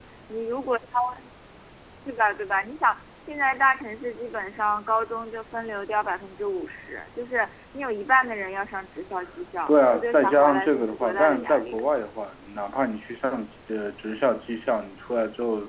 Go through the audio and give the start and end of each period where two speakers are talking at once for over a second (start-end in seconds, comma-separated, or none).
9.7-11.8